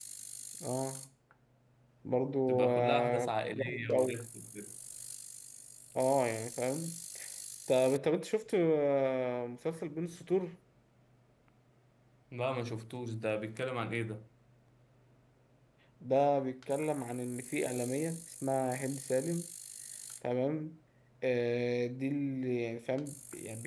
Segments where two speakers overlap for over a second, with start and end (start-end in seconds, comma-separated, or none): 2.5-4.2